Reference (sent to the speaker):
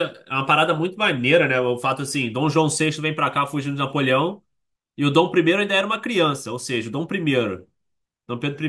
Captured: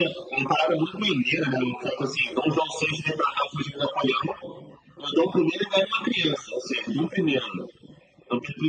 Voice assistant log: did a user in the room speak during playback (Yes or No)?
No